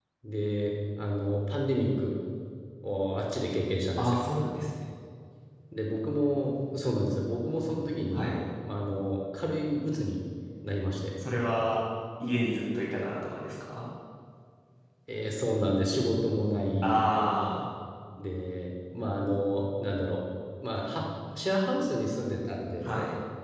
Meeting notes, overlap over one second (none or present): none